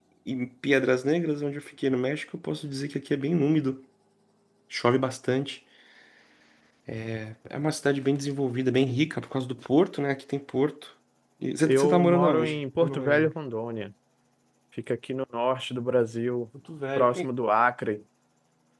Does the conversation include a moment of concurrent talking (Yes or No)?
Yes